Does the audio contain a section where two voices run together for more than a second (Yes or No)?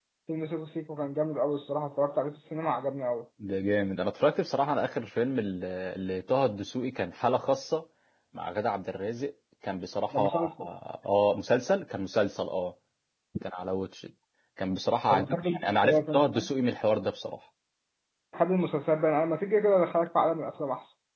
Yes